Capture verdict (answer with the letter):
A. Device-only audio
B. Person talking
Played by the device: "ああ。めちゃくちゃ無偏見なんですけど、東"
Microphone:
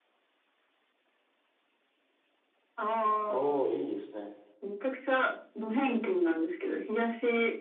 B